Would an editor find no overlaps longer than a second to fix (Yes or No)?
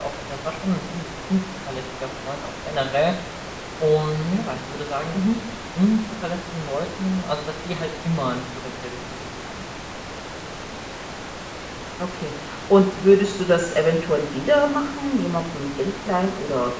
Yes